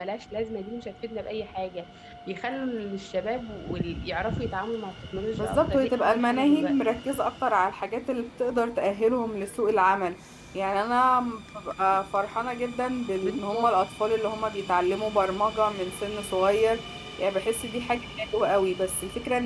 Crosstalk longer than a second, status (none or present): present